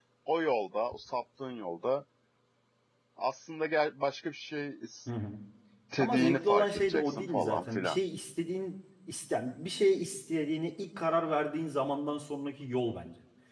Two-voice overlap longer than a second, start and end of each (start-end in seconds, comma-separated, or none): 6.0-8.0